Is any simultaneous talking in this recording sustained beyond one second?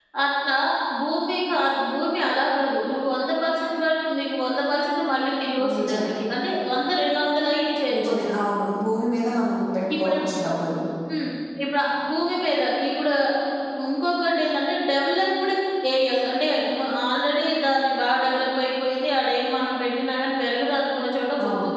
No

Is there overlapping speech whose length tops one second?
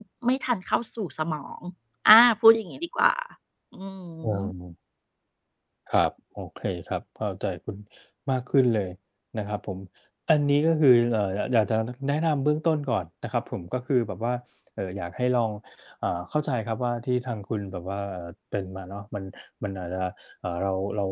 No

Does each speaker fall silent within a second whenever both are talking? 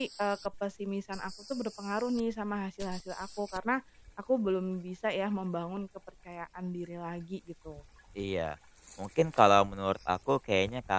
Yes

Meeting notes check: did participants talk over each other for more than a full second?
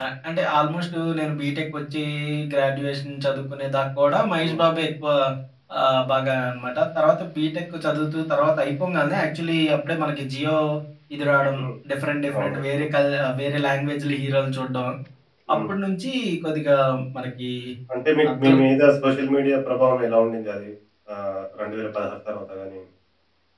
No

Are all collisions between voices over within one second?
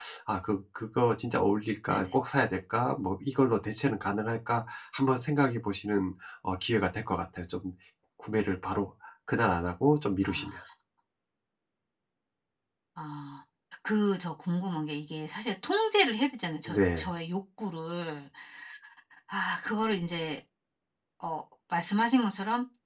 Yes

